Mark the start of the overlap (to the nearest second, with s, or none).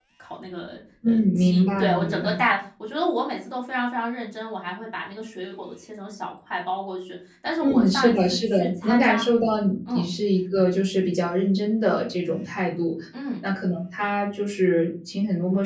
1 s